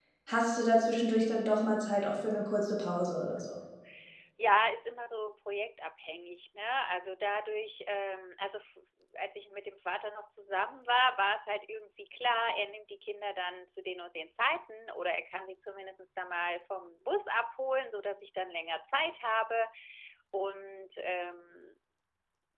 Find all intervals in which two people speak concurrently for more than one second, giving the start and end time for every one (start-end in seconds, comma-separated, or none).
none